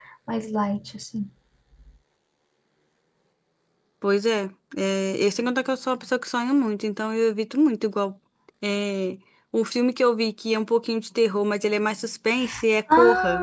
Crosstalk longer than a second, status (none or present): none